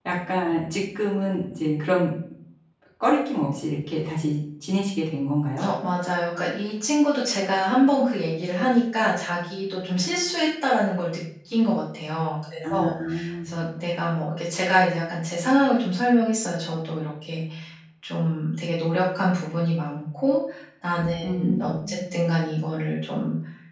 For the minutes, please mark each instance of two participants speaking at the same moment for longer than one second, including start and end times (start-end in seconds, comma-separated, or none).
none